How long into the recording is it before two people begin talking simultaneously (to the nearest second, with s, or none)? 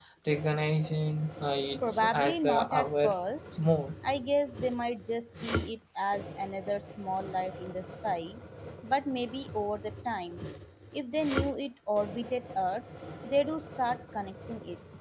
2 s